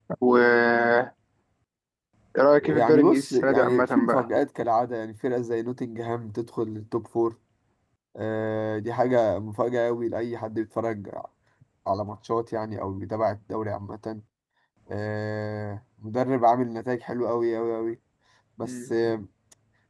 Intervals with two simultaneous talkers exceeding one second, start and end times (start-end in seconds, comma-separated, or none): 2.6-4.3